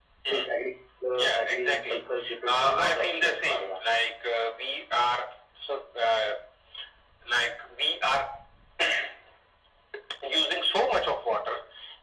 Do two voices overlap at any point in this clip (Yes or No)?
Yes